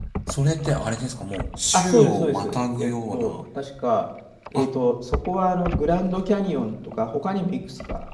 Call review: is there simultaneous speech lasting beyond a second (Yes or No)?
Yes